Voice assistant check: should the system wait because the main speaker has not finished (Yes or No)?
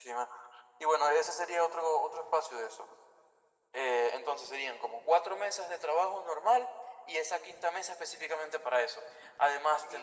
No